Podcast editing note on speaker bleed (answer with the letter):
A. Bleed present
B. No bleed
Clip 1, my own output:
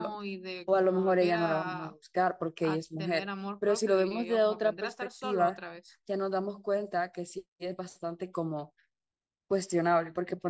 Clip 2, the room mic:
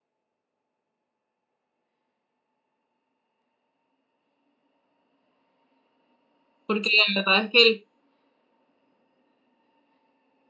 B